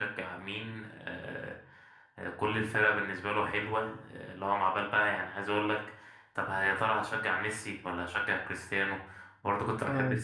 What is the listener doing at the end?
listening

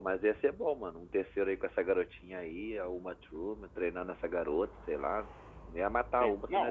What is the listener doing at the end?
taking over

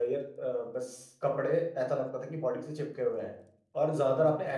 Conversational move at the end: listening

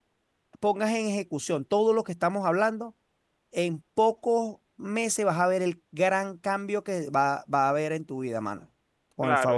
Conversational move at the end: taking over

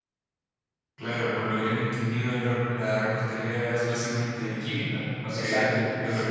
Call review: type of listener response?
taking over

